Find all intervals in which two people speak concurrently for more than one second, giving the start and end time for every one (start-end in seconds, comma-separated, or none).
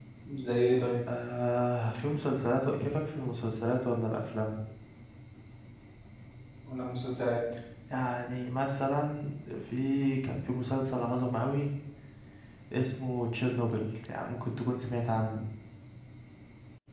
none